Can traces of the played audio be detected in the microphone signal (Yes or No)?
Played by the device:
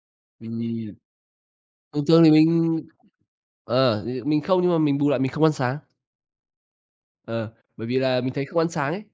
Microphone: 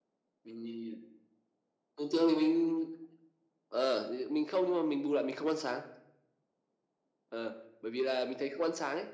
Yes